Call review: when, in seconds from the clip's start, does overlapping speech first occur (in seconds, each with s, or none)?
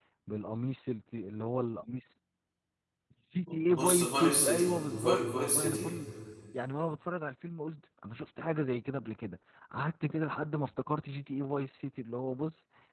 3.7 s